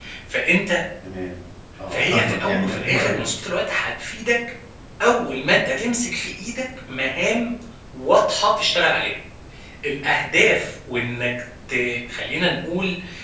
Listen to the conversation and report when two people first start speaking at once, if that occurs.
1.9 s

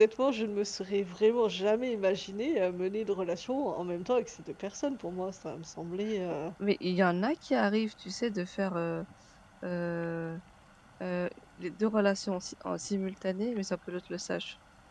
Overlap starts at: none

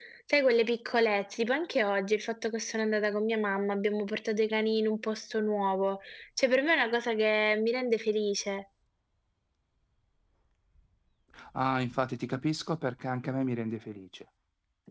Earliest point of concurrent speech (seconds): none

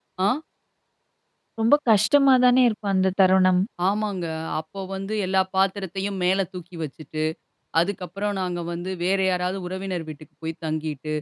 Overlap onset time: none

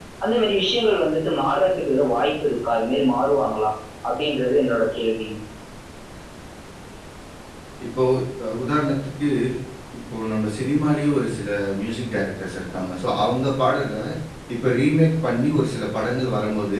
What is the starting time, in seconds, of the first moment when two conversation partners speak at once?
none

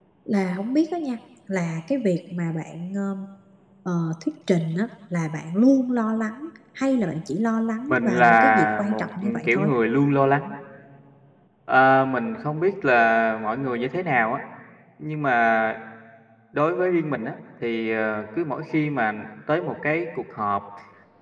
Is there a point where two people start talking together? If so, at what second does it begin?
7.9 s

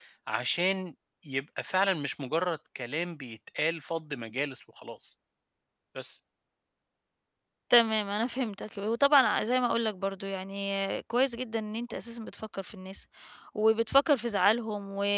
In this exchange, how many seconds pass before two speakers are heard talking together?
none

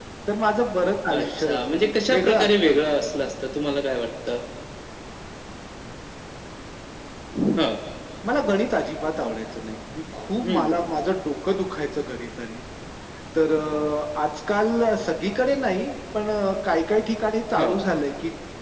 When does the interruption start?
1.1 s

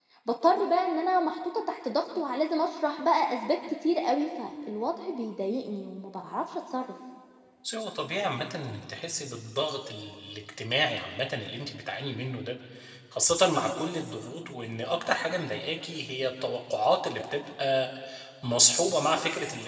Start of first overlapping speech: none

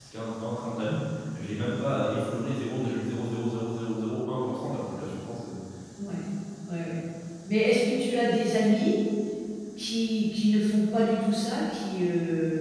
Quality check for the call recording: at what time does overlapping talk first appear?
none

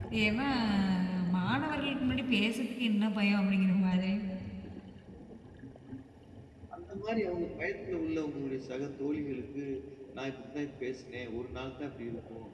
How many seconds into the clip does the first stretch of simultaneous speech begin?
none

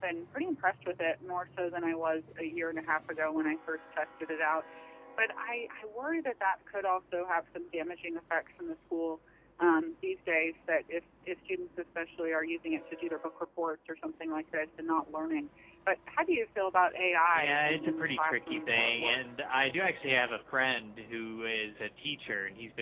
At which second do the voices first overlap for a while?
17.3 s

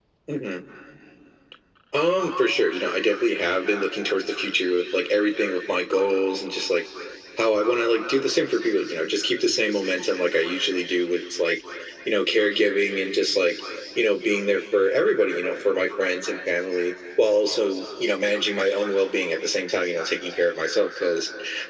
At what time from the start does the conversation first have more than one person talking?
none

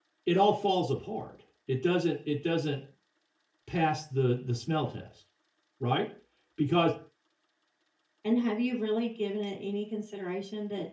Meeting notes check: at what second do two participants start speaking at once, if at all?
none

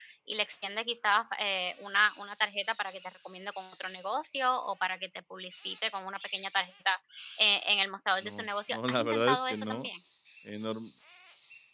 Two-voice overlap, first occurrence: 8.2 s

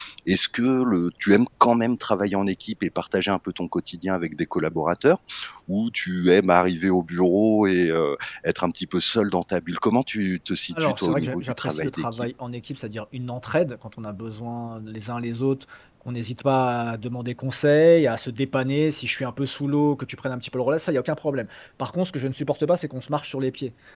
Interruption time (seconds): 10.8 s

